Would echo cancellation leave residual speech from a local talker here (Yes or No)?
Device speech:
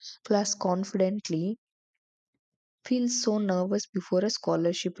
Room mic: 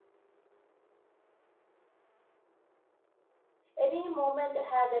Yes